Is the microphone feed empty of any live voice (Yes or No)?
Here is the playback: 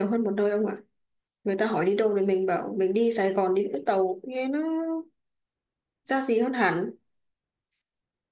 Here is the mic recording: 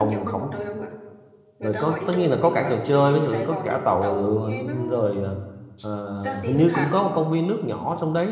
No